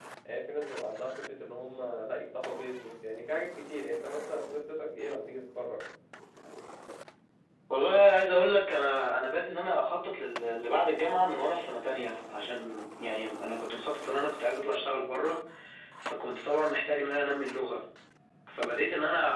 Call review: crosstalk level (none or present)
none